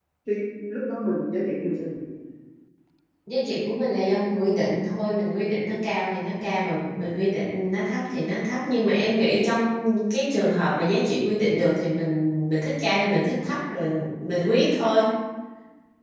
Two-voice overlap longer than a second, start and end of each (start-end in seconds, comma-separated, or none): none